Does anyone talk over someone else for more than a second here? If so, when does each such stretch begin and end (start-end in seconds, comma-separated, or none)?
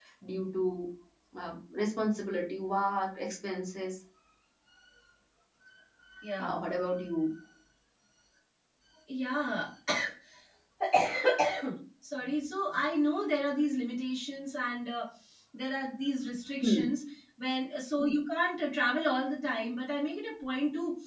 none